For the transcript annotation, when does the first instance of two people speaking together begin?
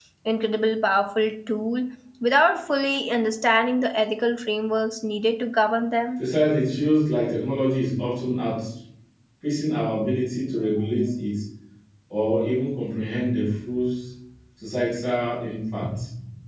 none

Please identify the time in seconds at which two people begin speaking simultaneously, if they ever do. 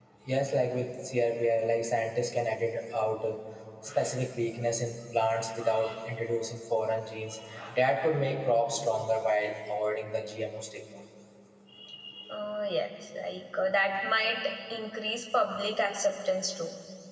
none

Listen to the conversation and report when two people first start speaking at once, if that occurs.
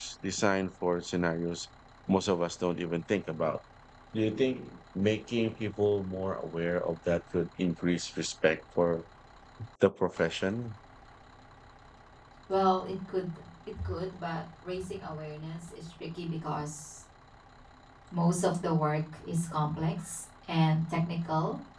none

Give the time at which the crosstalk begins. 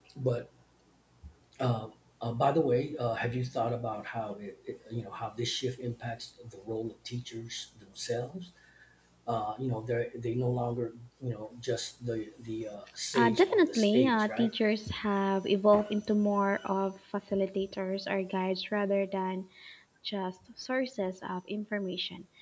13.1 s

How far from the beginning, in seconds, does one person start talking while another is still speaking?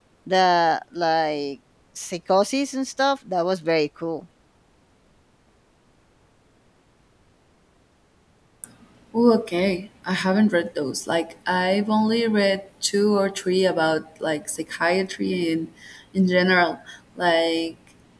none

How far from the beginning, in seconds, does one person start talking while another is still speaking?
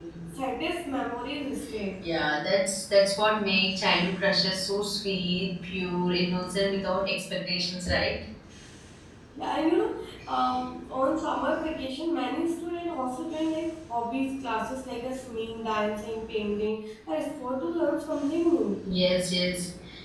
none

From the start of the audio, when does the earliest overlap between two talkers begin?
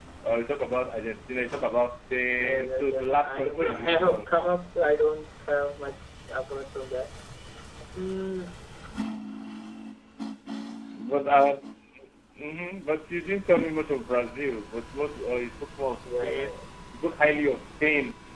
2.4 s

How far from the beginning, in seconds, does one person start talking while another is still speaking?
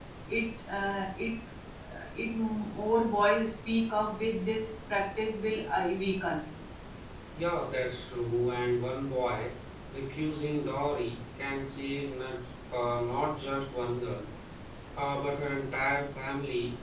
none

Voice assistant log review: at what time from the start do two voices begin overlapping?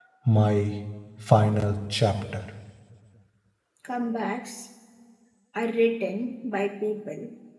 none

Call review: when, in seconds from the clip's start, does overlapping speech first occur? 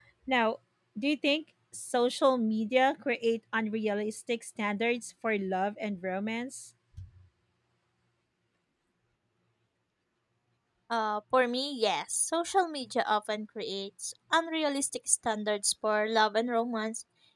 none

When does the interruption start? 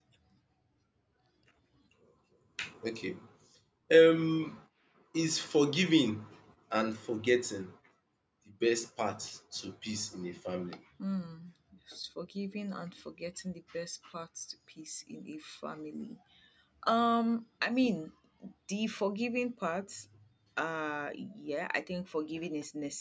none

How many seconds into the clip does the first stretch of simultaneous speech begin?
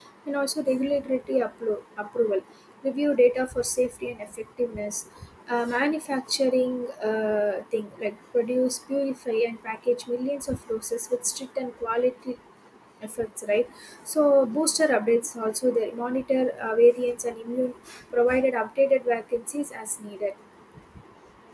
none

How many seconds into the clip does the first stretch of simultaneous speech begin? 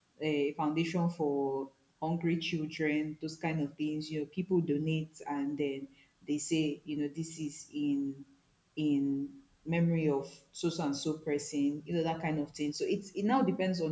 none

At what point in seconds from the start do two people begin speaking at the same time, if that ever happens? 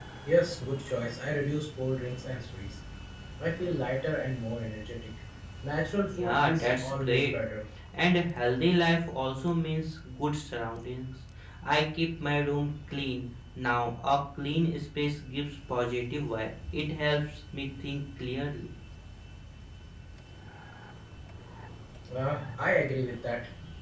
6.1 s

